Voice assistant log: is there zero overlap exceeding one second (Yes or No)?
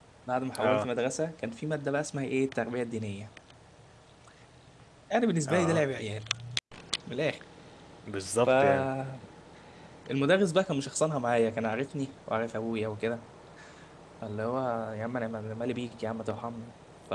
Yes